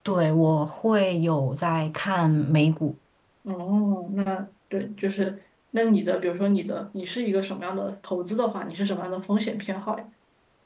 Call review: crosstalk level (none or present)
none